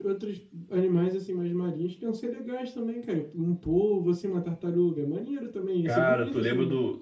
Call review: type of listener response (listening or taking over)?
taking over